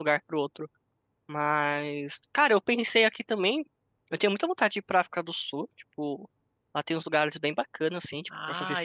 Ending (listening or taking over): taking over